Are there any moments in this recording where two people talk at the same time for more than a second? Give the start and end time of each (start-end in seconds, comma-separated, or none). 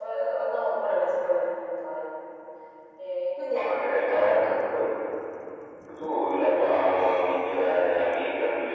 3.5-4.8